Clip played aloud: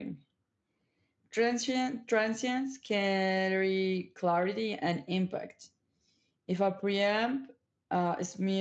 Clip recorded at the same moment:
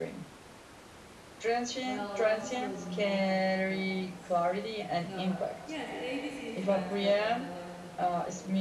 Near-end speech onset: 2 s

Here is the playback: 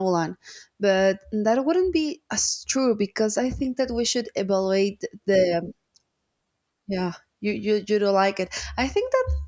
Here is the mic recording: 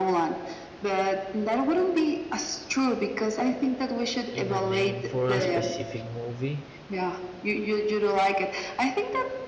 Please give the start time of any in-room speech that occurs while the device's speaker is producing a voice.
4 s

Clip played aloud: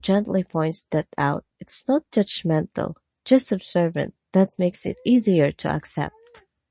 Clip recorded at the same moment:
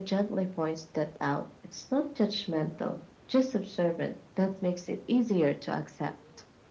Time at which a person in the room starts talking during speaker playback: none

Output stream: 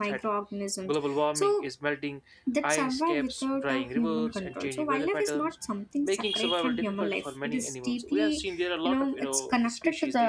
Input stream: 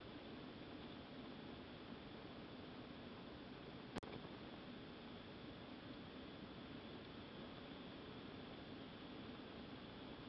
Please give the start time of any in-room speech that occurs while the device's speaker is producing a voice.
none

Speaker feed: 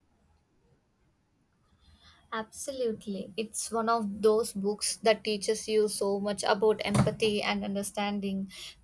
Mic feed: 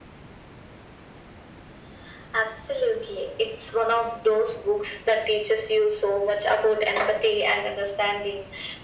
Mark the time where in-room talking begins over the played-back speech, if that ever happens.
none

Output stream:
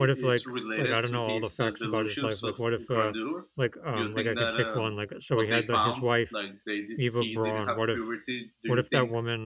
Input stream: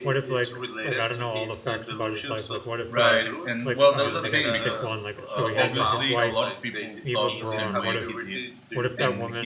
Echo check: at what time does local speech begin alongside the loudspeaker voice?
3 s

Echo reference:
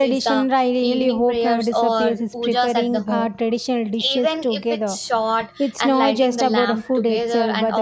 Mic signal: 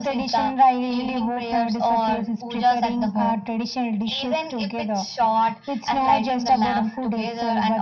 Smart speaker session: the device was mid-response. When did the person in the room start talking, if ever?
none

